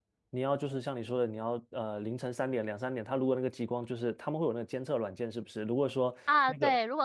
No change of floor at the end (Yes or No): No